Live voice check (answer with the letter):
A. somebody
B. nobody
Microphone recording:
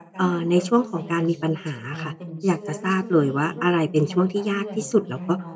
A